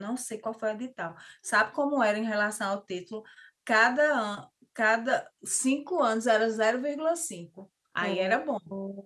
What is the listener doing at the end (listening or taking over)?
taking over